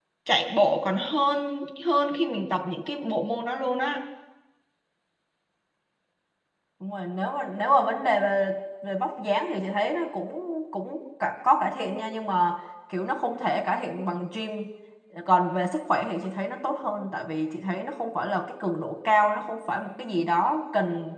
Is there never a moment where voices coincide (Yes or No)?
Yes